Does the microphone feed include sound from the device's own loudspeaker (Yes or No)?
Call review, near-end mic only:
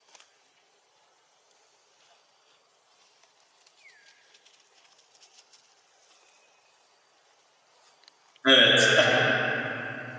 No